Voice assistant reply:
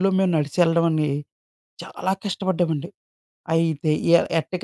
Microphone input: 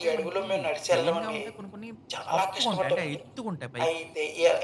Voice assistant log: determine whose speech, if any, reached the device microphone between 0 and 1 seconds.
both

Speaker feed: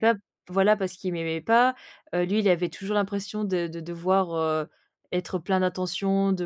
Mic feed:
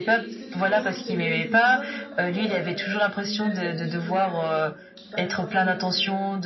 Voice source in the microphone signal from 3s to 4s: both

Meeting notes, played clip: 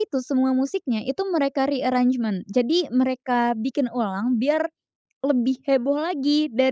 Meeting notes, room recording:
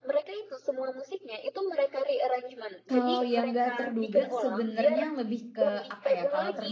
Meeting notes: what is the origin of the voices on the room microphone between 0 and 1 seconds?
echo only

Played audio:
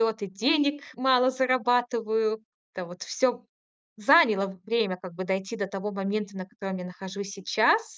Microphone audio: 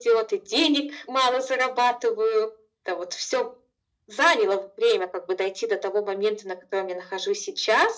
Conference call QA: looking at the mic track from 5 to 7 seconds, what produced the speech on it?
echo only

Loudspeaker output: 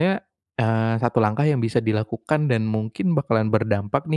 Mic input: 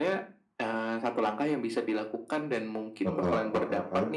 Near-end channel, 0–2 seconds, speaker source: echo only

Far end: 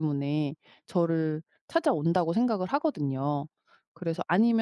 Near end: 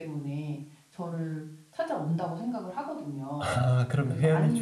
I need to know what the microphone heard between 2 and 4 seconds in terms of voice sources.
both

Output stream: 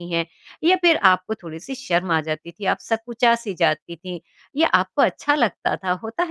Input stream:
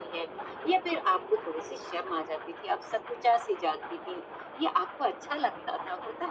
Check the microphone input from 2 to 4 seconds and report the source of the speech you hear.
echo only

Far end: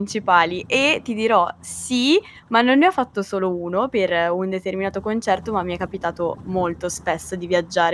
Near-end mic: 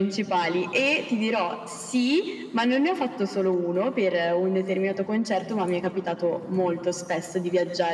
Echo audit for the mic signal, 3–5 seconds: echo only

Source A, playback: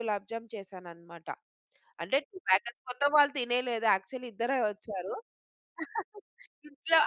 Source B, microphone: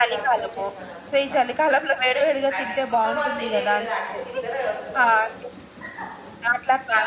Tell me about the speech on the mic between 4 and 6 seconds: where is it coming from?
both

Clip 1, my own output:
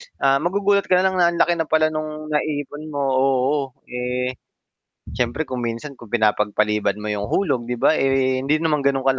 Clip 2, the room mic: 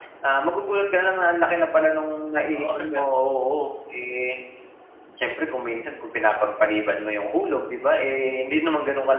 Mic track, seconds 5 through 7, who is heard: echo only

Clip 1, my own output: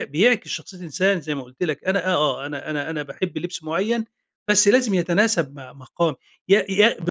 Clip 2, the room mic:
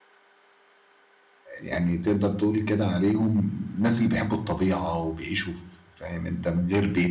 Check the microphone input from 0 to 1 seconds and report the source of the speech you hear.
neither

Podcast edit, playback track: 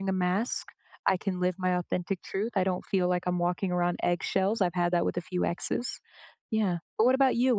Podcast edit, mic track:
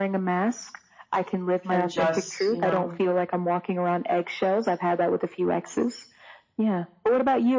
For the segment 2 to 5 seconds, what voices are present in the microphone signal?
both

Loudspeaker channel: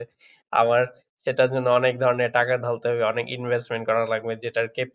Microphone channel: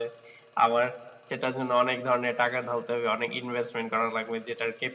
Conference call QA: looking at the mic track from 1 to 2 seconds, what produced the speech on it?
echo only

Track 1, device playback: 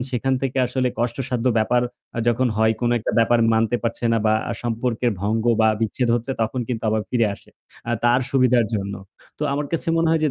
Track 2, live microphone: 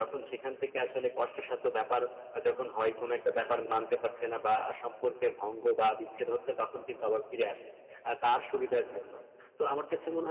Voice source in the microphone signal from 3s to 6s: echo only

